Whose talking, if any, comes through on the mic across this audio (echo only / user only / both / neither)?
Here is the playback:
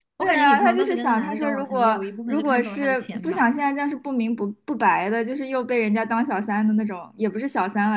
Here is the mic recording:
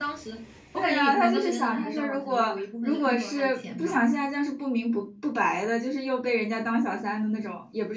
echo only